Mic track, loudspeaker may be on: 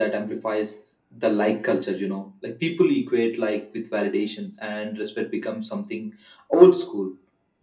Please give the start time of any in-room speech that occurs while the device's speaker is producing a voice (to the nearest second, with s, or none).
none